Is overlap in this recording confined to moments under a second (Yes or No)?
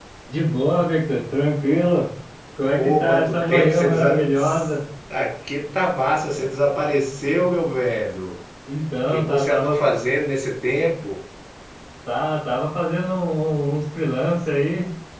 No